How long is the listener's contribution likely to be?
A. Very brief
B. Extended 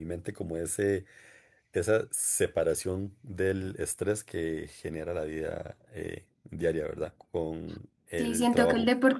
B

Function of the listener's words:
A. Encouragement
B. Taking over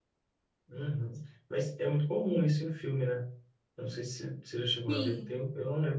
A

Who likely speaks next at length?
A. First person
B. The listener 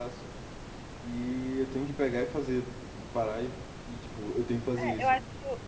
B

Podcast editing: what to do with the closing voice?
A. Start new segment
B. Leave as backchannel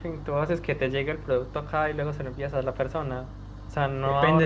A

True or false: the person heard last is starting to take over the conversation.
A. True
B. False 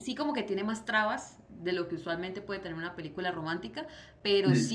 B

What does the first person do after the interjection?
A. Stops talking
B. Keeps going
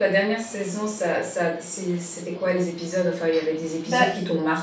B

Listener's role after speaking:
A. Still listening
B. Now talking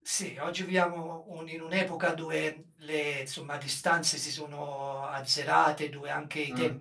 A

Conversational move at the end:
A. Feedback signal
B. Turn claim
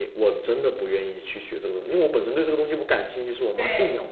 B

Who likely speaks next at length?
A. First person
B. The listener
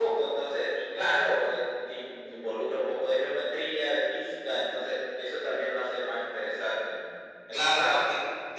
B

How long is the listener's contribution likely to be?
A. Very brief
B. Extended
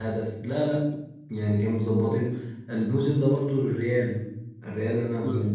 B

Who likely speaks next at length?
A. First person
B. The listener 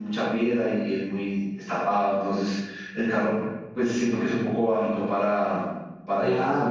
B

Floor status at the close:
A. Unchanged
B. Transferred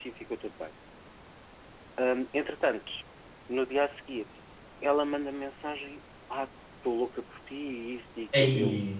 A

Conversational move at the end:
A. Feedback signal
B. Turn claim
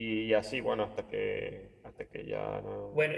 B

